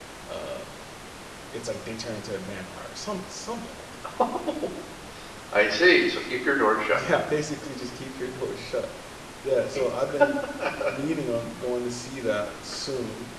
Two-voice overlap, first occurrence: none

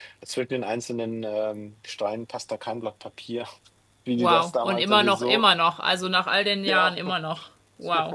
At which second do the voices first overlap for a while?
4.1 s

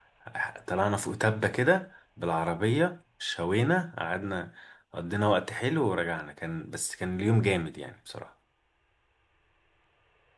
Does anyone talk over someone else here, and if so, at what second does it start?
none

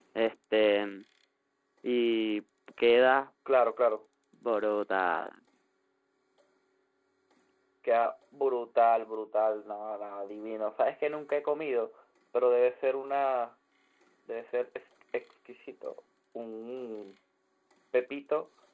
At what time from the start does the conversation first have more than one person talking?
none

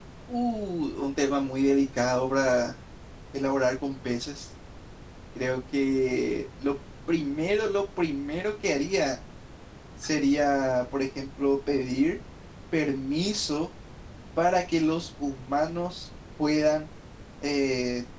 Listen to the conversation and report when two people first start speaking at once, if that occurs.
none

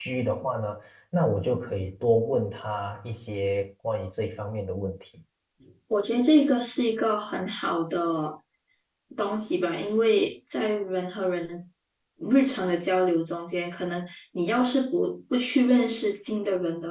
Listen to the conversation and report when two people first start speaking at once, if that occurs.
none

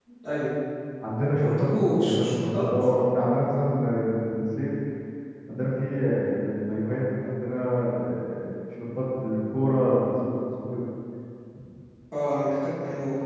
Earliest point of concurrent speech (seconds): 1.4 s

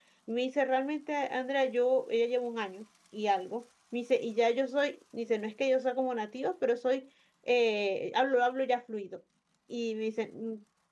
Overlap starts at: none

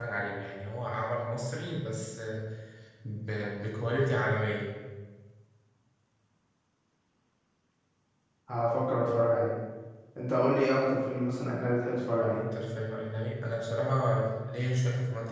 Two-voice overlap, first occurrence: none

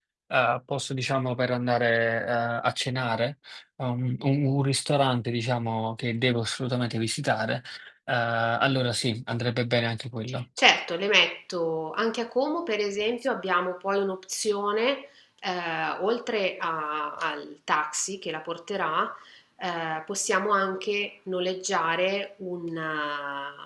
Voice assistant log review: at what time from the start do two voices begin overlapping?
none

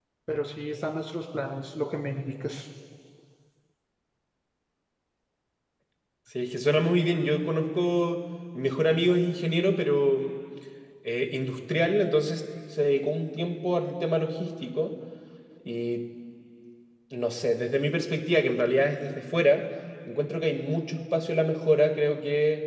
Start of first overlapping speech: none

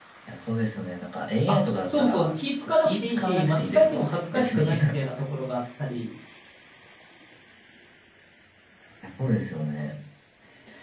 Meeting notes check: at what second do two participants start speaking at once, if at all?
1.5 s

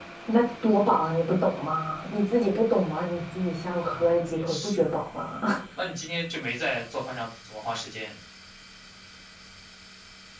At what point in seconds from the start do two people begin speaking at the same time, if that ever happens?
3.8 s

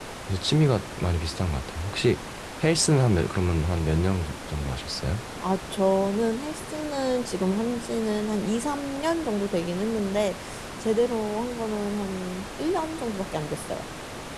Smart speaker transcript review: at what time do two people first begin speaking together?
none

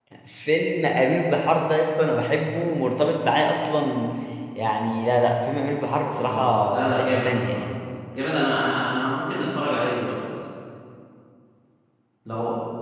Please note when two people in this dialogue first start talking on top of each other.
6.2 s

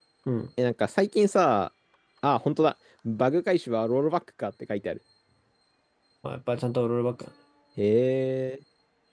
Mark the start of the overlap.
none

